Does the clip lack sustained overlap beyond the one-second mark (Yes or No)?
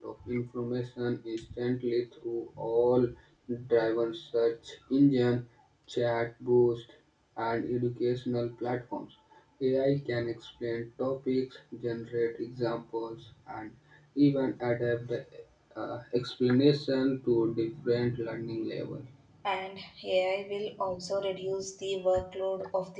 Yes